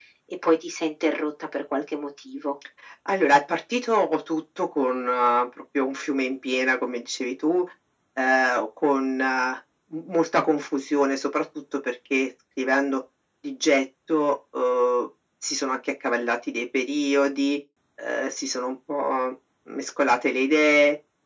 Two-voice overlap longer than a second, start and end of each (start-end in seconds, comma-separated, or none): none